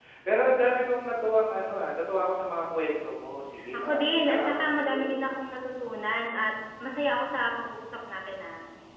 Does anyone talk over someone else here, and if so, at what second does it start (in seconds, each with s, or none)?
3.7 s